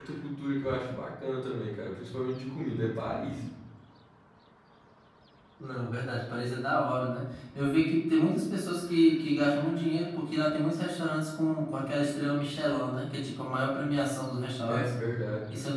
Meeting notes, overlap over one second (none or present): none